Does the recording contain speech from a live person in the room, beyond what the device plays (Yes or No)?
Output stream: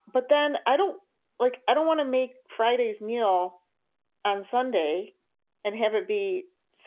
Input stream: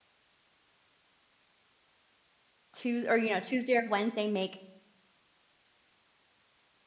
Yes